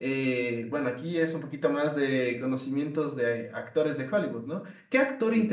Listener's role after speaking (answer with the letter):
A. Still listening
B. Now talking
A